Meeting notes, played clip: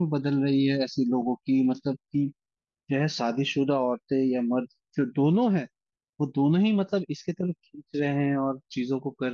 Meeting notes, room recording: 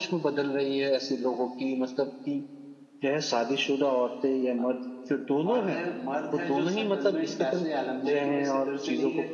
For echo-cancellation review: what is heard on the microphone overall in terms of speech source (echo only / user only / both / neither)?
both